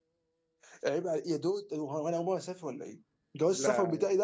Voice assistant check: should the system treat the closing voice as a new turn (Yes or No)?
No